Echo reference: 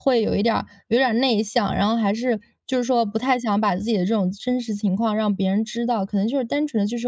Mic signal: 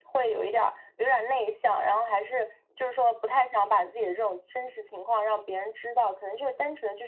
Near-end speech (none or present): none